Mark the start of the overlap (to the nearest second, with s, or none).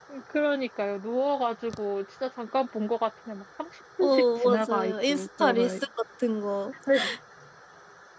4 s